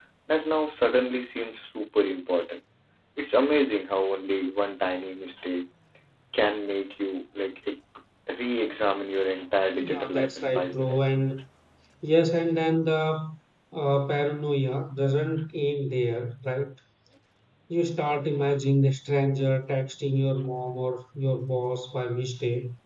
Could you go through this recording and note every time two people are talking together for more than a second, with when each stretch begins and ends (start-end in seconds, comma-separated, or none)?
9.8-11.0